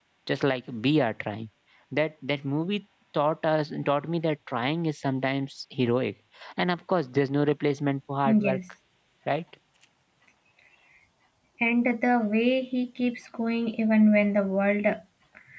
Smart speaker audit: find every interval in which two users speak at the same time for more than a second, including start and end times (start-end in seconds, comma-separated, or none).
none